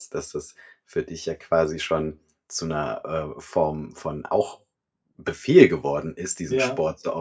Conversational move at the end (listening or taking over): listening